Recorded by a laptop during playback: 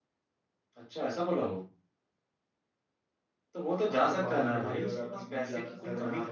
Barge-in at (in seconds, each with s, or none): 3.9 s